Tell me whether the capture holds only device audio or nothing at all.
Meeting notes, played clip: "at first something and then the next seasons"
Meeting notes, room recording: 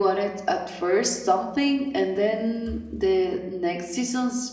Yes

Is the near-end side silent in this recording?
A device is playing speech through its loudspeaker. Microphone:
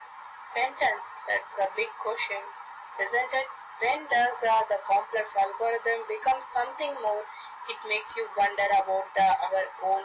Yes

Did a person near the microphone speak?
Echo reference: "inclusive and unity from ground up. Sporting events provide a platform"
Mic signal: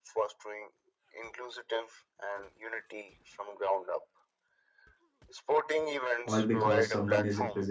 Yes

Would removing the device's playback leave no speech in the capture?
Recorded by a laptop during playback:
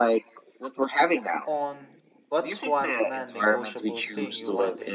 No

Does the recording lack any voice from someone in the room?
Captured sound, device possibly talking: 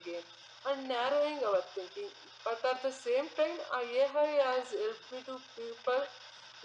Yes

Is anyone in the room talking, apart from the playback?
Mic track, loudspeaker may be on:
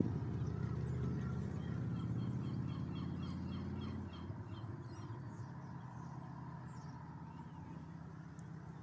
No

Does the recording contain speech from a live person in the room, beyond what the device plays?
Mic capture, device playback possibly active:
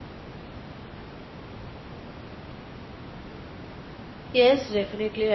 Yes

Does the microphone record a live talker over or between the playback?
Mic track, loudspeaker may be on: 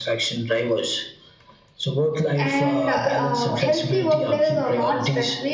Yes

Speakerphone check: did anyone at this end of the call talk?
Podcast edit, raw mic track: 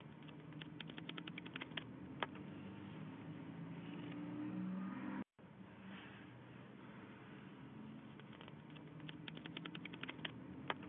No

